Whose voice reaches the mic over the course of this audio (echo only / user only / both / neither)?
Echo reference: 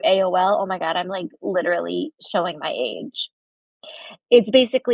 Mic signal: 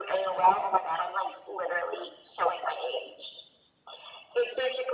echo only